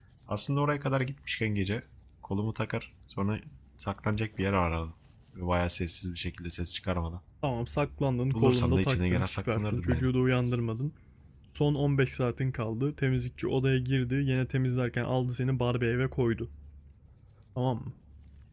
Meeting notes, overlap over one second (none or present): present